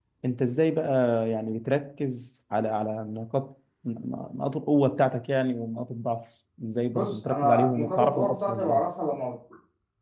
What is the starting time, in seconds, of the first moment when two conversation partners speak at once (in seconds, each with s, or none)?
6.9 s